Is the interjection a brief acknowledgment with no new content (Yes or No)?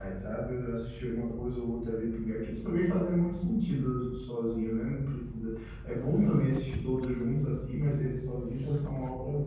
Yes